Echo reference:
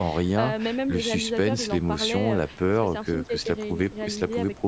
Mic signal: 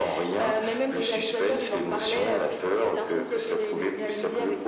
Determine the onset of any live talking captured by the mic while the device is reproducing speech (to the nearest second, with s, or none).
none